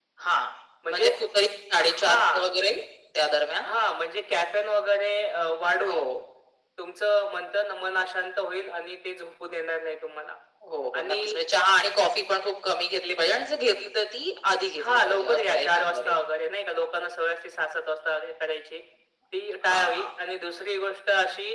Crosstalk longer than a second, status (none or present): present